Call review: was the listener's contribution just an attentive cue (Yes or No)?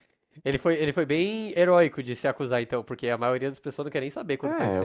No